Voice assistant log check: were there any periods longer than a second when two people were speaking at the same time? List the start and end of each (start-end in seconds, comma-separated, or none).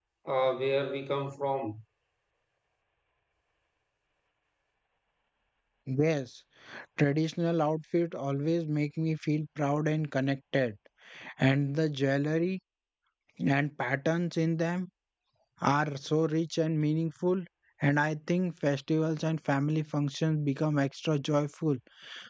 none